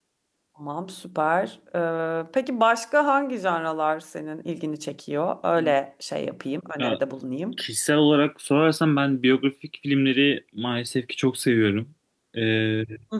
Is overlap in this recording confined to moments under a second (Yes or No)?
Yes